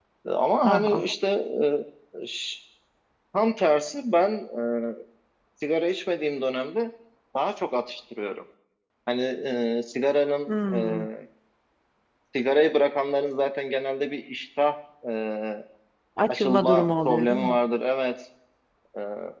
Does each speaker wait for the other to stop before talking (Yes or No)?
No